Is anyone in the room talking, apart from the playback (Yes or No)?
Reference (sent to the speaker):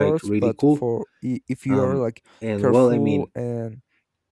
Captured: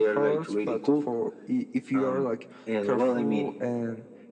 No